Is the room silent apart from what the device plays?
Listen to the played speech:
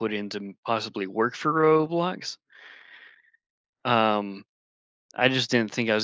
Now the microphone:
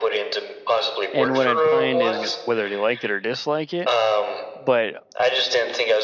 No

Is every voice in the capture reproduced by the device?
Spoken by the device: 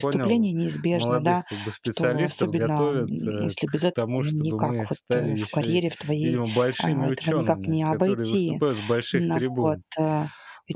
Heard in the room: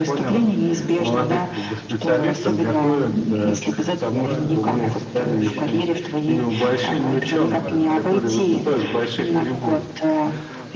No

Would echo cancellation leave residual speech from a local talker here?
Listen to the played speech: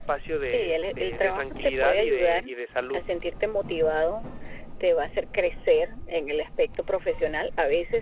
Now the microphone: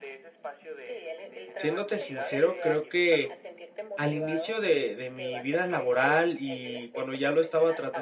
Yes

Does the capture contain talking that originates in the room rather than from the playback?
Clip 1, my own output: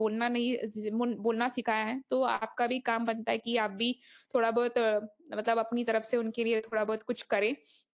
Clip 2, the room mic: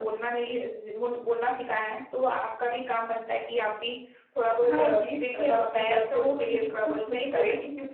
Yes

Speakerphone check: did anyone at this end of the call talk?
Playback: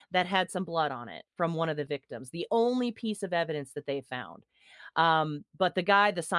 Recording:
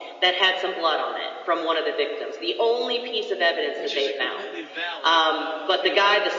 Yes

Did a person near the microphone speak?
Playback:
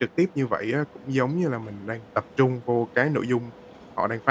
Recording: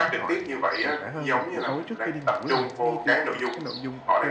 Yes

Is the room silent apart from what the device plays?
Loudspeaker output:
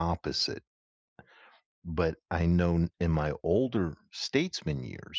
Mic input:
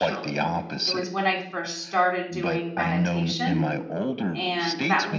No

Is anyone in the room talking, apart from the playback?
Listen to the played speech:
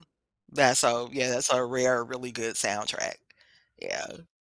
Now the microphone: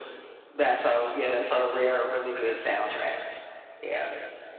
No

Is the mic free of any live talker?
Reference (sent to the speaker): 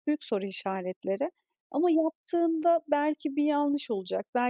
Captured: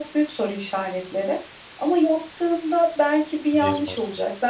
No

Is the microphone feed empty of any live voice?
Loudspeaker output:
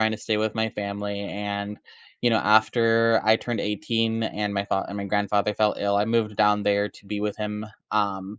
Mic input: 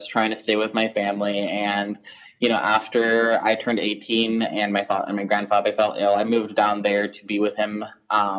Yes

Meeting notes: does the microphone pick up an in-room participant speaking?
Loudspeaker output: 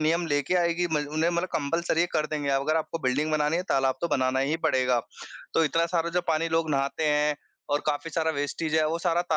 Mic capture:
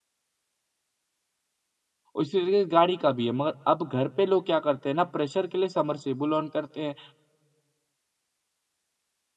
Yes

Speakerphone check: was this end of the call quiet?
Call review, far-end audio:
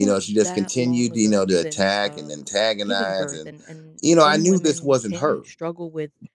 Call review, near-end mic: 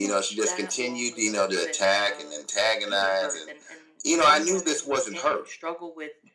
Yes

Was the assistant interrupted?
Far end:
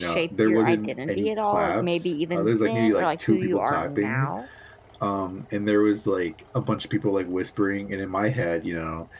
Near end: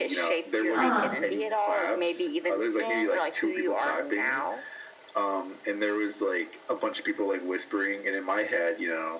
Yes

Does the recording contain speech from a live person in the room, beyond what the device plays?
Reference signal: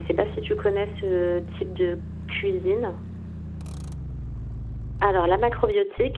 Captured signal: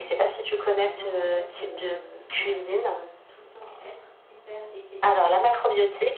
Yes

